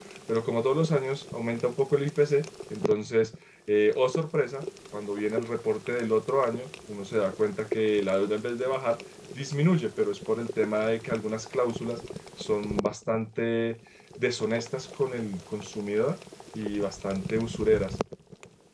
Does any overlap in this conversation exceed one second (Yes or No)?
No